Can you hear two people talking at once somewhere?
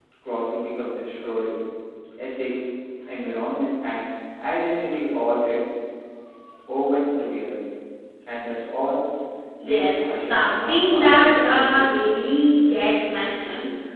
Yes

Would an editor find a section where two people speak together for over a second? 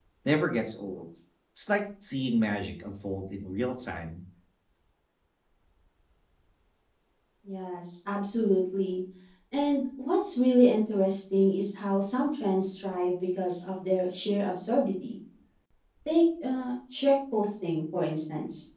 No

